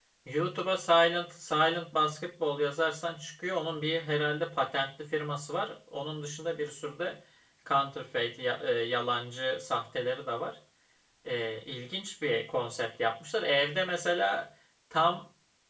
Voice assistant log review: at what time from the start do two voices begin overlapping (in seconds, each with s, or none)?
none